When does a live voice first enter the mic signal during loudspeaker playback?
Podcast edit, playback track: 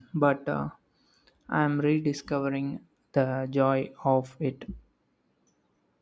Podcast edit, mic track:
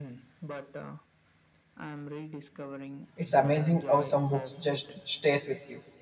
3 s

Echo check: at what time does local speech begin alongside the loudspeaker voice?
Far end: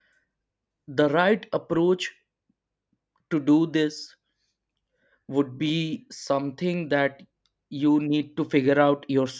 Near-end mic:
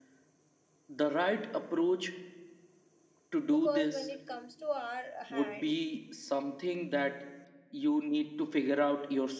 3 s

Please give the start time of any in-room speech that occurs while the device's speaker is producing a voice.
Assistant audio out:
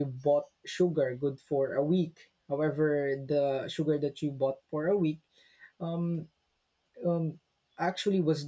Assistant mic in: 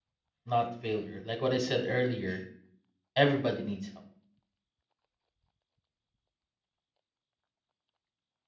0 s

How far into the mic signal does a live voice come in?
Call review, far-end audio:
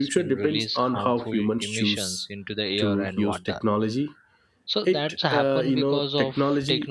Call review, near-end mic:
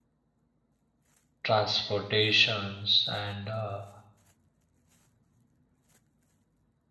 1 s

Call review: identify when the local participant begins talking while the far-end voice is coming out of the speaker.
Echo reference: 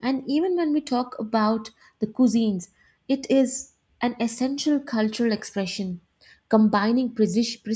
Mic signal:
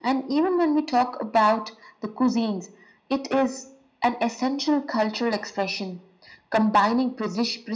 none

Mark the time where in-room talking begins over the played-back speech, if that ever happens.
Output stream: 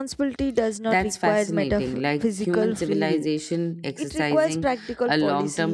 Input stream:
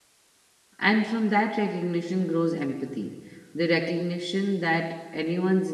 1 s

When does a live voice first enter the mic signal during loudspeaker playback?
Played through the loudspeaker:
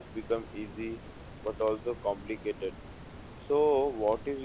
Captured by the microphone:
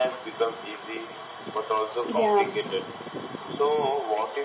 2 s

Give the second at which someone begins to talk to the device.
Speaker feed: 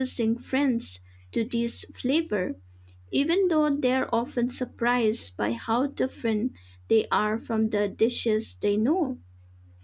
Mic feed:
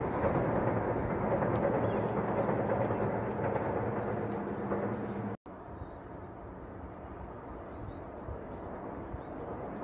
none

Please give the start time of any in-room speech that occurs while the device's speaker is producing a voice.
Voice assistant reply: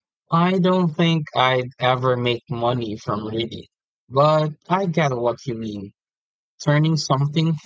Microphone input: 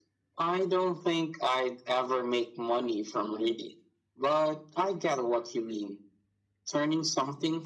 none

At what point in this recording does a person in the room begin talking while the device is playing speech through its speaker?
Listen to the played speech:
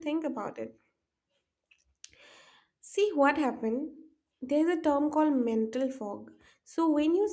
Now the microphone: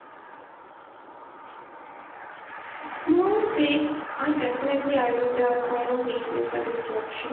3 s

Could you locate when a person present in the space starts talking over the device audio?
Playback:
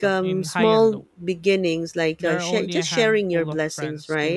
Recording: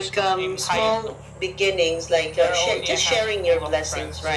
none

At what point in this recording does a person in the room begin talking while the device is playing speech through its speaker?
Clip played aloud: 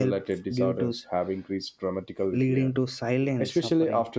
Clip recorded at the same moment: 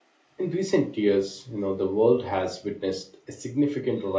0 s

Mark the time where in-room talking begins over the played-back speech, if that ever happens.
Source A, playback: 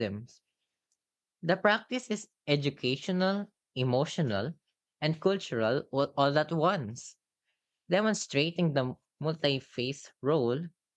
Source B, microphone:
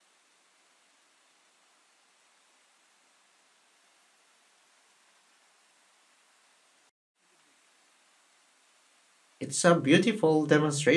9 s

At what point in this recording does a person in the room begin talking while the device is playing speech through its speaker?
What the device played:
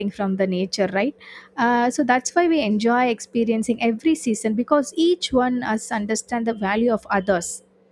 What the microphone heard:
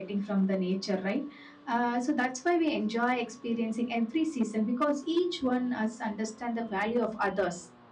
none

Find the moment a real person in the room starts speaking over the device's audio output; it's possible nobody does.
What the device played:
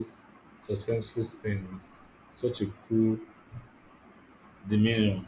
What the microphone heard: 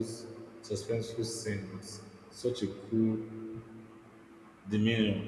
none

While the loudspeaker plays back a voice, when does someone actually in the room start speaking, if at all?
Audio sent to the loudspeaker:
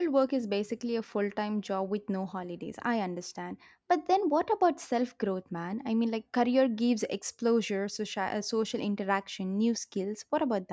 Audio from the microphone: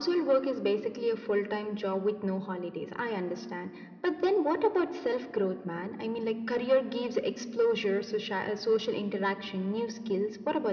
none

